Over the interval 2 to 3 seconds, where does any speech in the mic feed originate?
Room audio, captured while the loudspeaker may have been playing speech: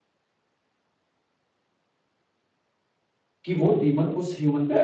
neither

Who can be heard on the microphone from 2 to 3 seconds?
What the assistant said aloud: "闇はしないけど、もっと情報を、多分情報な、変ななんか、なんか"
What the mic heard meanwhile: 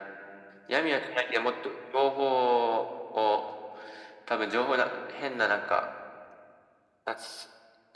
echo only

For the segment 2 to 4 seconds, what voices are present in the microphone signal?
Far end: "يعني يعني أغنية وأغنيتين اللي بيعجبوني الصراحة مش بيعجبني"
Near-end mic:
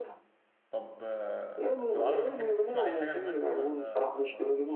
both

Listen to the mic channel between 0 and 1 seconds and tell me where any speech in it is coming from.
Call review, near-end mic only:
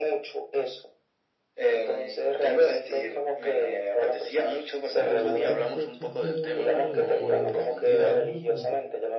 echo only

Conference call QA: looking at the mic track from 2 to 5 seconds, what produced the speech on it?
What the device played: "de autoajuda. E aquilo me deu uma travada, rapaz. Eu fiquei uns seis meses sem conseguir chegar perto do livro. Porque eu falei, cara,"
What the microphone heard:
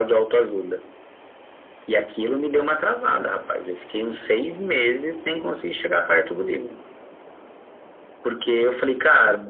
echo only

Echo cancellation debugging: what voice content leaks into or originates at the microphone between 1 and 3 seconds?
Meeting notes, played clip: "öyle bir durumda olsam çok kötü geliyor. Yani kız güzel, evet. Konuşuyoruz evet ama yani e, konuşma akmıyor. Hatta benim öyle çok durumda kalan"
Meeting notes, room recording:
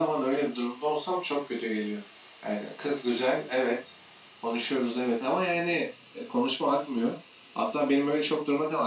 echo only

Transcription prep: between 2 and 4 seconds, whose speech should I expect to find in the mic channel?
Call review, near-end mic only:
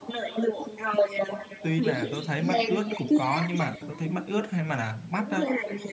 both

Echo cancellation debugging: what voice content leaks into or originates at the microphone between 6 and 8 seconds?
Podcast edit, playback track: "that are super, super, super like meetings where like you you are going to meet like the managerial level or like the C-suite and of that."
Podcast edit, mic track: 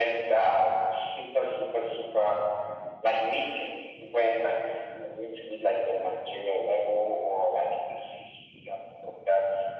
echo only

